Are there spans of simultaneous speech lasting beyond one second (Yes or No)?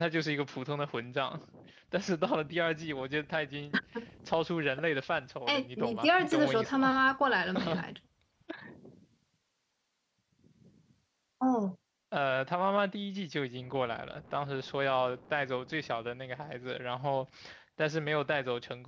Yes